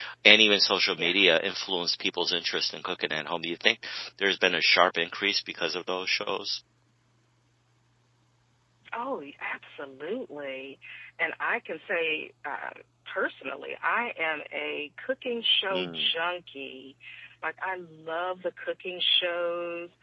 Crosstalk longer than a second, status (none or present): none